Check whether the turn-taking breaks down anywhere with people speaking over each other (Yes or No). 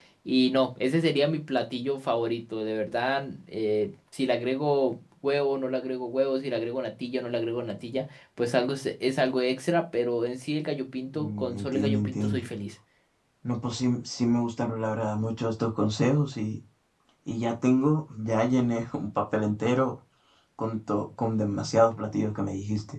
Yes